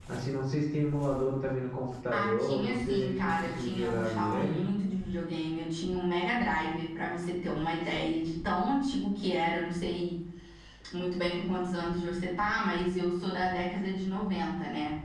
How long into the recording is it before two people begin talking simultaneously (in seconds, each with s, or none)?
2.1 s